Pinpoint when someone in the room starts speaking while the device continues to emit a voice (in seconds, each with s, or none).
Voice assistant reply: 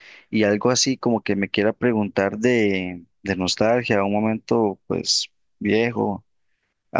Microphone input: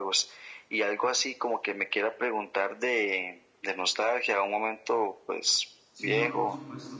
5.9 s